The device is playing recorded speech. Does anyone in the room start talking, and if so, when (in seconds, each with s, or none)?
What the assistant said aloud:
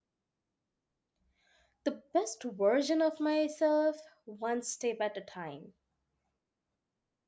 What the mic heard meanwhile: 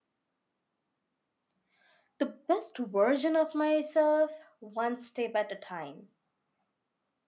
none